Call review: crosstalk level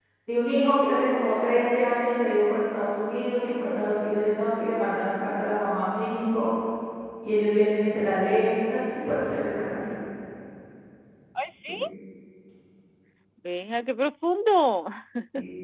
none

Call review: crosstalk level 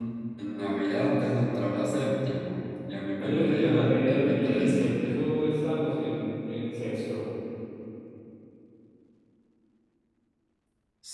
present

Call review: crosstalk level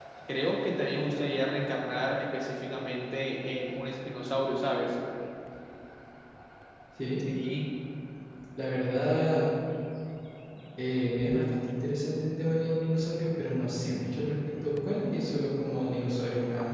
none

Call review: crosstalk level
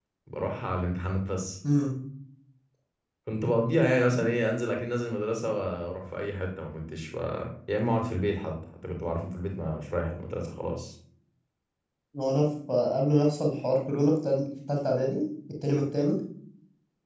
none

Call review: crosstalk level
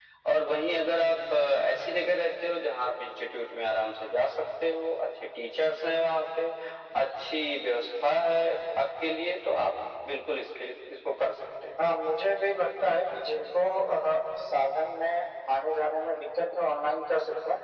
none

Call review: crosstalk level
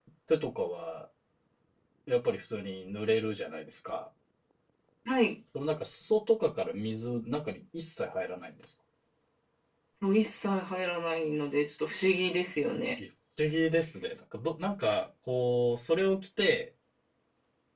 none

